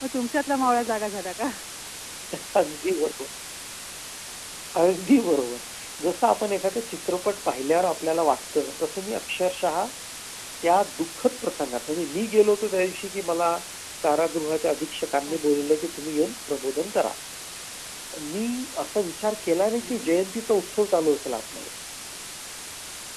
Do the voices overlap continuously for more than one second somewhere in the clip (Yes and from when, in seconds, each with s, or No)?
No